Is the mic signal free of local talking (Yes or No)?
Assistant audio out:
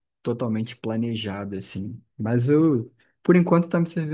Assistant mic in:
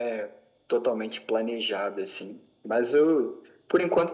Yes